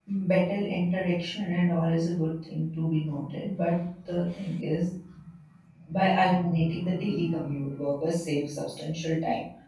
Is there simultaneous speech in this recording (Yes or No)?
No